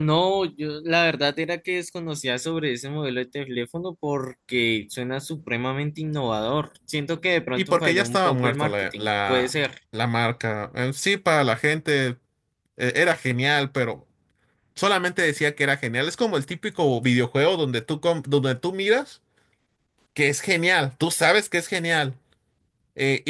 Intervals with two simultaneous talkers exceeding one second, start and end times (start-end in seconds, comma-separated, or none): 7.6-9.5